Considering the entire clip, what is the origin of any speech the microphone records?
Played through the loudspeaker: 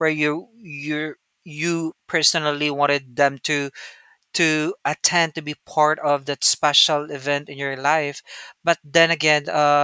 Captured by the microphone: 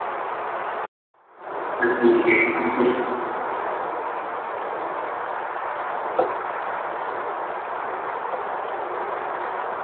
user only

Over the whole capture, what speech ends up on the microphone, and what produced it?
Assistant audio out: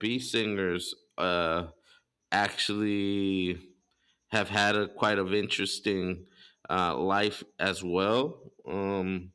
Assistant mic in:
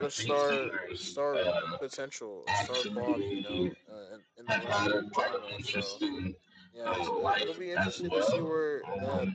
both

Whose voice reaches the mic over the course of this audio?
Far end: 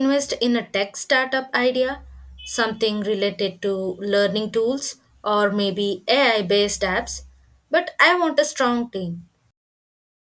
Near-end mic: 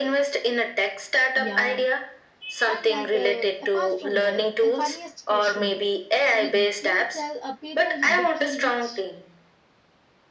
both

